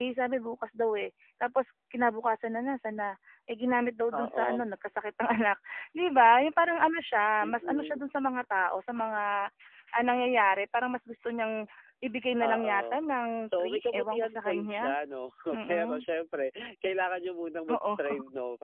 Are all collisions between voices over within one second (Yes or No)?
No